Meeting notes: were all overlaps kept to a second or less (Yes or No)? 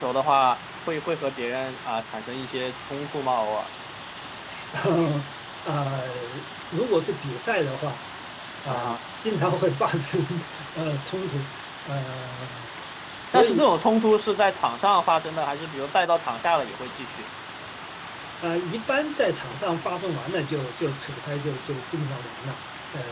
Yes